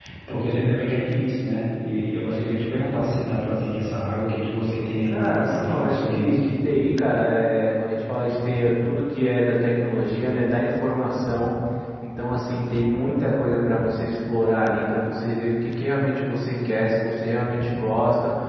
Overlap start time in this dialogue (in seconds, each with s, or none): 5.0 s